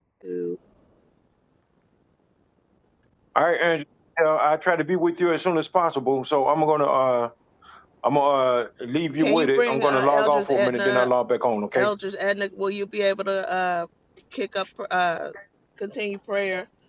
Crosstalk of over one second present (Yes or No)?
Yes